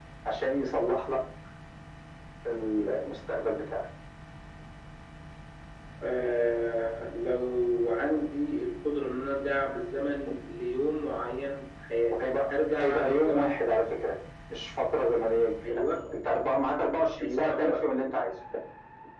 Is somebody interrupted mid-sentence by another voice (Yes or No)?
Yes